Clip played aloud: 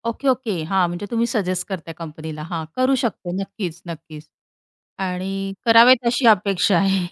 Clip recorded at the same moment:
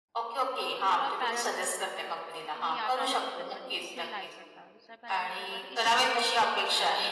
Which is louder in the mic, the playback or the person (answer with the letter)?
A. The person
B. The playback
B